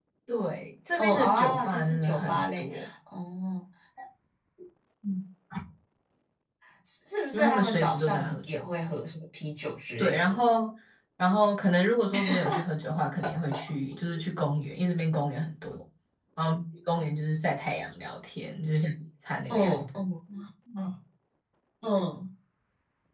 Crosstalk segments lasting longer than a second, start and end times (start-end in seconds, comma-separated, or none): 1.0-2.7, 7.3-8.6